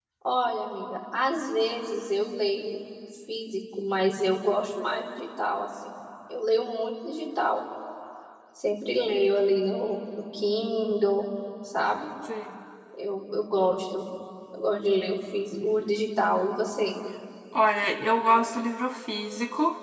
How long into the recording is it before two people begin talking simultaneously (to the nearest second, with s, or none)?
none